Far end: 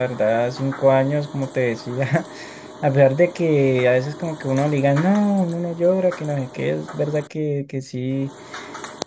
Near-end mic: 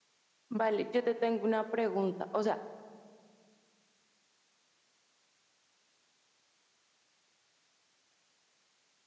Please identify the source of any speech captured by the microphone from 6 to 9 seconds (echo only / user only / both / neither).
neither